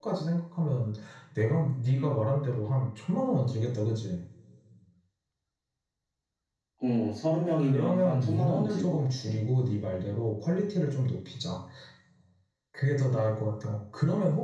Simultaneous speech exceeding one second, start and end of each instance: 7.6-9.2

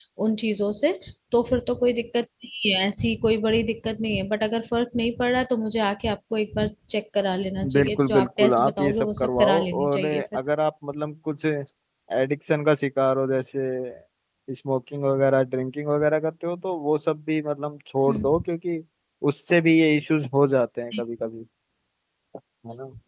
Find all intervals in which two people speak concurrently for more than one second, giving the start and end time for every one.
7.7-10.2

